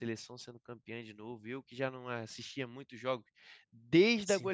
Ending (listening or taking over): listening